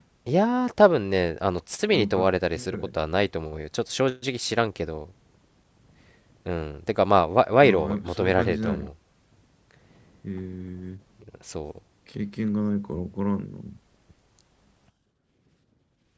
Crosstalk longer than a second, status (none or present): present